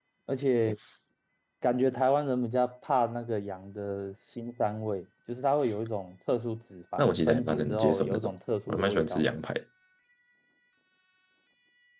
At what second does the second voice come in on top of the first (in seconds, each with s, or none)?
7.0 s